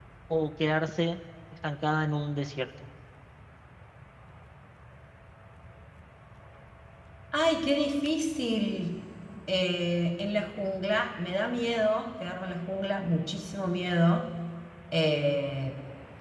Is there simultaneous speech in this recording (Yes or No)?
No